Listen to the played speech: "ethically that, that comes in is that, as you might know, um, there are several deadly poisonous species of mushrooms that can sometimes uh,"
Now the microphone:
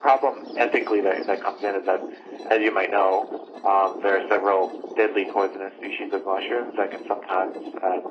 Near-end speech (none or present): none